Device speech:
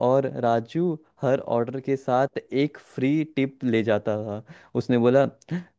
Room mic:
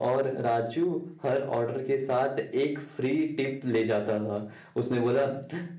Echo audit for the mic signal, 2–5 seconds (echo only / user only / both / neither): echo only